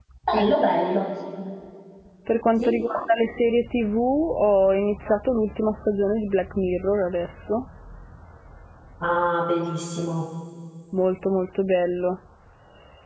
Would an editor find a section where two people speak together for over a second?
No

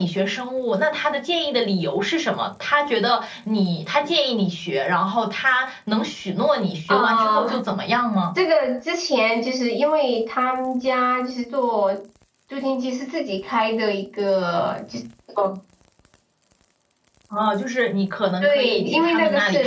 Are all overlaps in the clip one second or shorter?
No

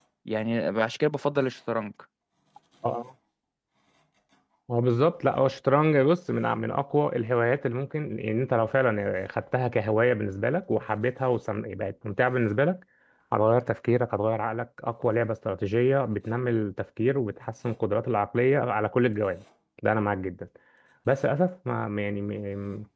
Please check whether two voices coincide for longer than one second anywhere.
No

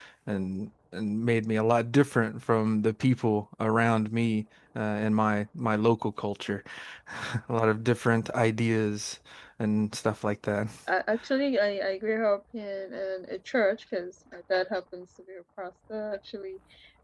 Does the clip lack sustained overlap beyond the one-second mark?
Yes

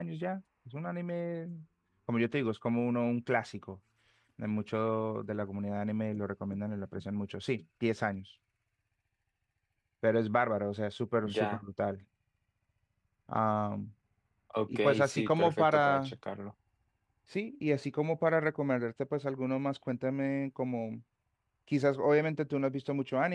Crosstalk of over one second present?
Yes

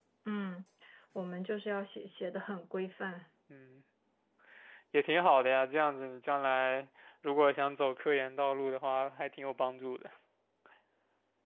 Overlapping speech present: No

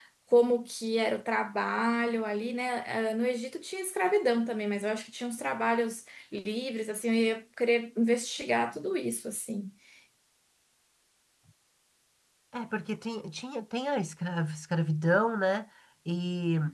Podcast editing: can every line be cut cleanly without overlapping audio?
Yes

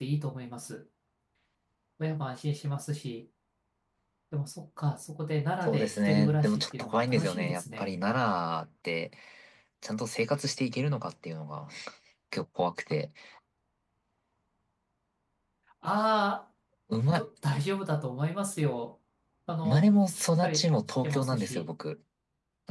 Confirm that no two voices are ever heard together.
No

